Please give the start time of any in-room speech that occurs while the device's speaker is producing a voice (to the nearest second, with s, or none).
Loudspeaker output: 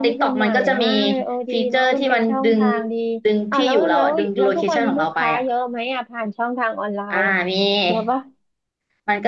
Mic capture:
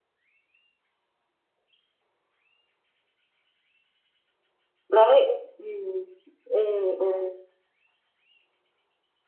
5 s